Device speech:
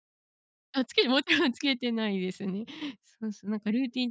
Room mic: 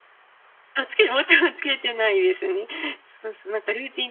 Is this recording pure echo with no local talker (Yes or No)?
Yes